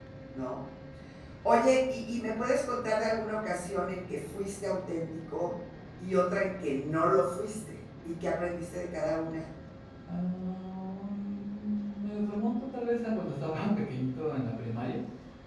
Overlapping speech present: No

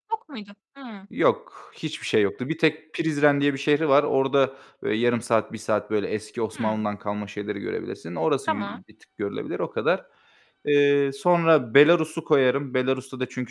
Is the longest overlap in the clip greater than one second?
No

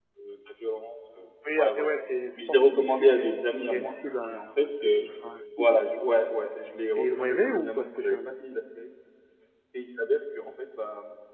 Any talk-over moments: Yes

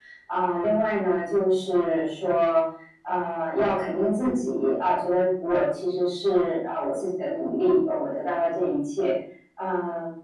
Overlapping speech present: No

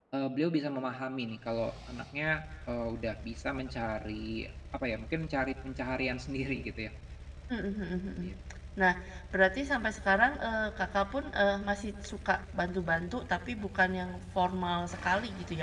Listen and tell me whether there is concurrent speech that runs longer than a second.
No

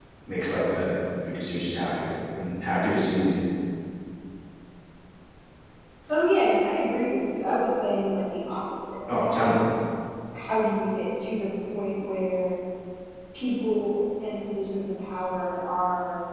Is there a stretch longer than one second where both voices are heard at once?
No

